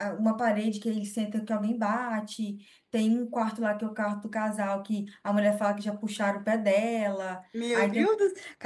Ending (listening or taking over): taking over